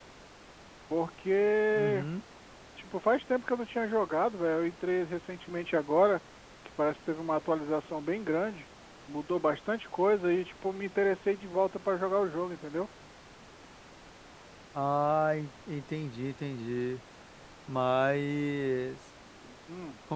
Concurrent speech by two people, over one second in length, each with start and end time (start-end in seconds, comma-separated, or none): none